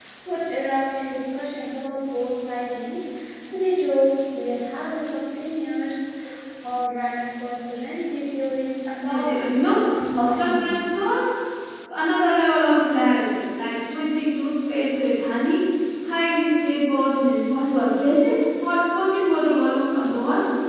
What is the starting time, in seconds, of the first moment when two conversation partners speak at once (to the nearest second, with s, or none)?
9 s